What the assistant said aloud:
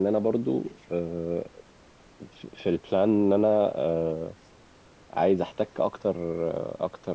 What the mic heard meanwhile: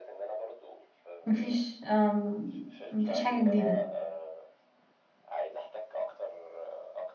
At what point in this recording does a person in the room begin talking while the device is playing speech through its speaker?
1.2 s

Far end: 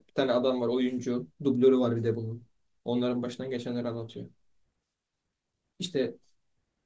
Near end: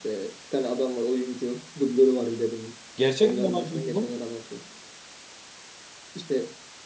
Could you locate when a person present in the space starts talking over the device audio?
3.0 s

